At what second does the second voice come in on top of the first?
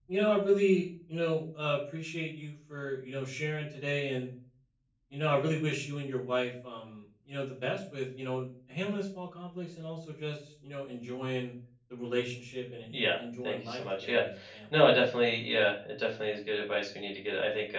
12.9 s

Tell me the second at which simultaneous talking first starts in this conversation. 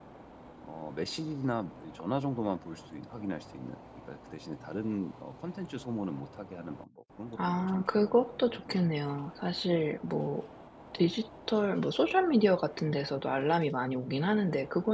7.4 s

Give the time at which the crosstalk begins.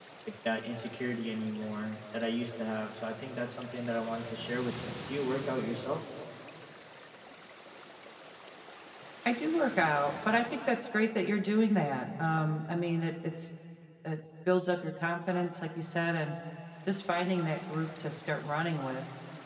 none

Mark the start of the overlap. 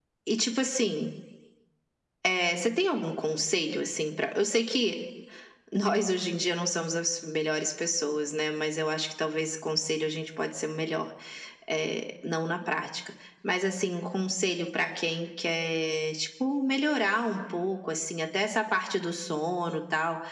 none

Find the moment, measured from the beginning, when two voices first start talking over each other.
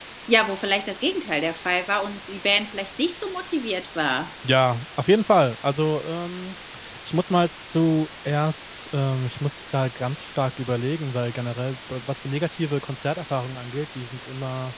none

